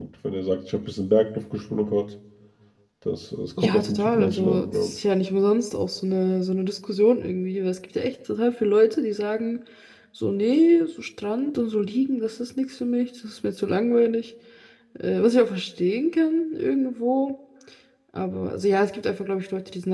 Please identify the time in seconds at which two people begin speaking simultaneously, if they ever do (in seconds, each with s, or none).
3.6 s